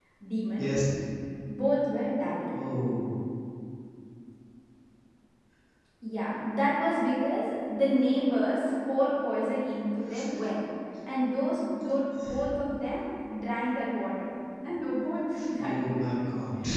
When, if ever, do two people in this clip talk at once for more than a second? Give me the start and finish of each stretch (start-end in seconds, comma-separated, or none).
none